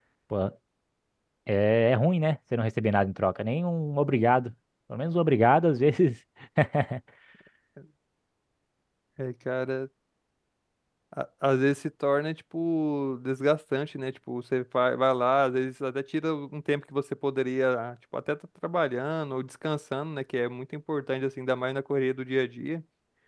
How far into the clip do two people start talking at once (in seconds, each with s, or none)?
none